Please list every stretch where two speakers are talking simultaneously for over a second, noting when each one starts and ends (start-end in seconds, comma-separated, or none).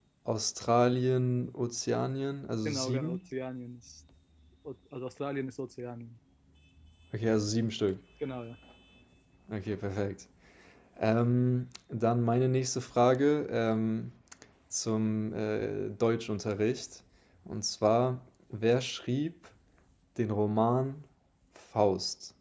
none